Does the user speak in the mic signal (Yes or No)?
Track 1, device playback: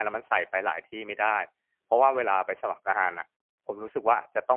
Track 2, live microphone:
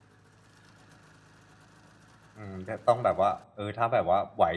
Yes